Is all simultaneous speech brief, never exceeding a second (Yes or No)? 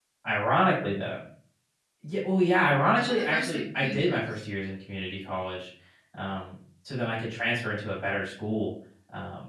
No